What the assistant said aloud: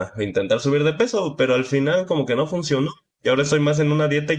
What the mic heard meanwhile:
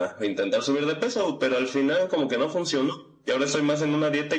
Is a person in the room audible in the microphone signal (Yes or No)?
No